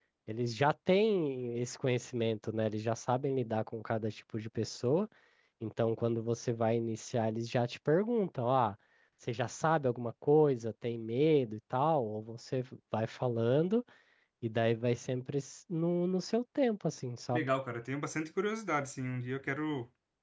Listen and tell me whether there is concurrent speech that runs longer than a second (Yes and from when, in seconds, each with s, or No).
No